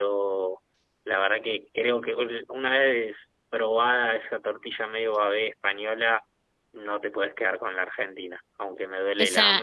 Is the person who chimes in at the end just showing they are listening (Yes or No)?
No